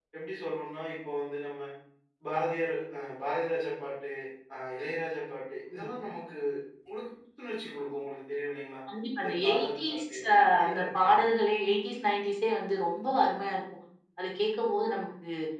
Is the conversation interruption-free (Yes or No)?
No